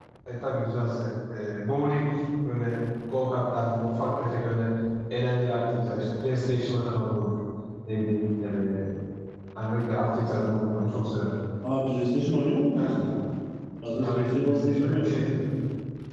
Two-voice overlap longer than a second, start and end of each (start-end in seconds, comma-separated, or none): 13.9-15.2